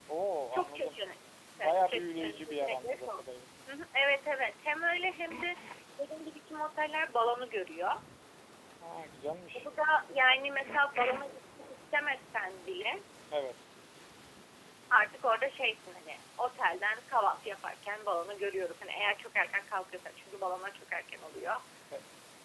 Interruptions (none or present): present